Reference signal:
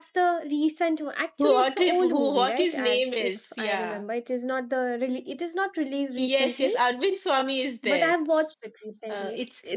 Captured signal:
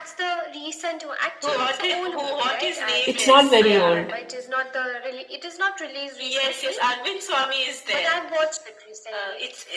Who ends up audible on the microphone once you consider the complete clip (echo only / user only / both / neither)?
both